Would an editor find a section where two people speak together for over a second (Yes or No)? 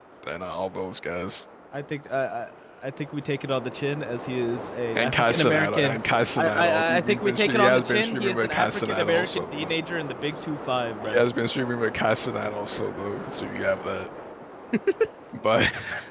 Yes